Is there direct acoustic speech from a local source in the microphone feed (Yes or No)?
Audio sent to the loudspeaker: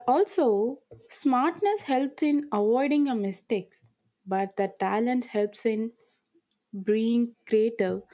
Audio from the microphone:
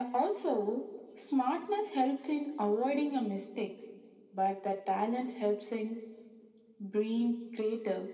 No